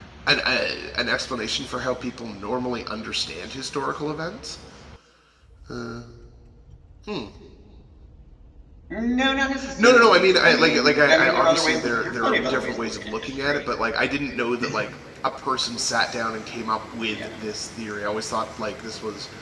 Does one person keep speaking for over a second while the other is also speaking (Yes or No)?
Yes